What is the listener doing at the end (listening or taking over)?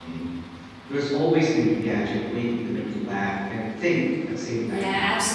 taking over